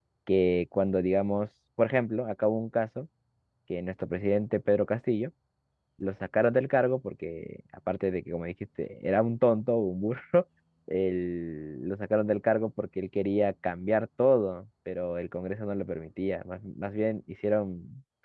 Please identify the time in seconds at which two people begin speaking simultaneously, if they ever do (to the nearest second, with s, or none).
none